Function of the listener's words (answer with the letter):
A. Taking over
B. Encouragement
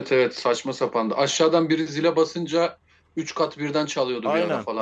A